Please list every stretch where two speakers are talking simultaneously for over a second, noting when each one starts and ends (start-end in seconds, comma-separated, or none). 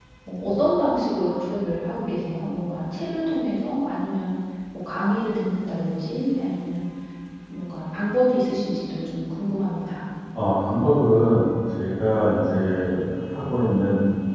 none